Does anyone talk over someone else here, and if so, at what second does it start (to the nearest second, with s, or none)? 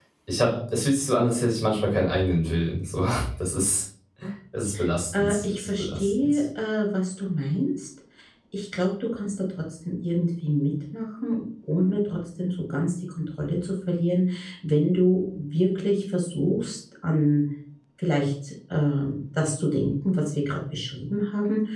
5 s